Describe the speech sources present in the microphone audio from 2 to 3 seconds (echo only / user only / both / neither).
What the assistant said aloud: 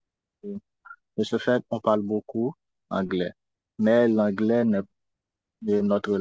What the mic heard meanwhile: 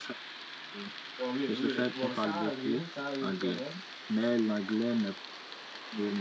both